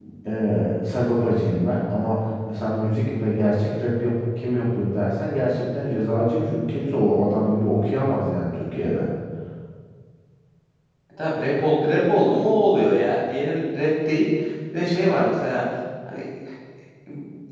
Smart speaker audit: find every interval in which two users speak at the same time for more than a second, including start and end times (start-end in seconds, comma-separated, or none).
none